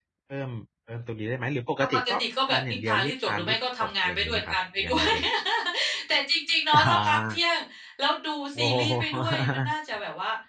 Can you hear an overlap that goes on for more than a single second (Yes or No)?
Yes